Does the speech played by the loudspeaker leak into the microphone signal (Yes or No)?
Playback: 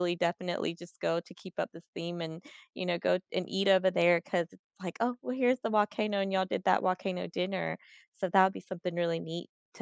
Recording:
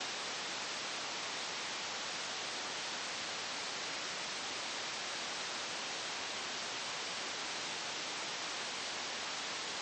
No